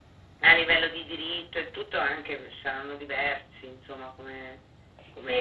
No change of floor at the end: No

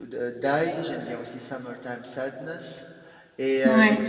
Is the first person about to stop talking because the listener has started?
No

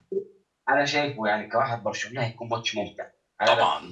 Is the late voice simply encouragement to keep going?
No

